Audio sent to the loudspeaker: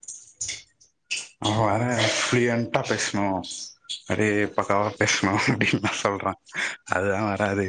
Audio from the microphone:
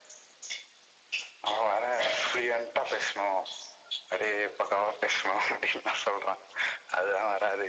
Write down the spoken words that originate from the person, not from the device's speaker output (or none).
none